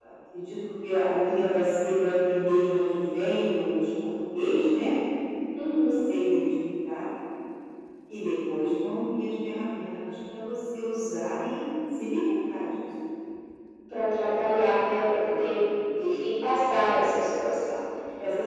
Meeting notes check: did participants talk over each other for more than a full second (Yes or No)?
No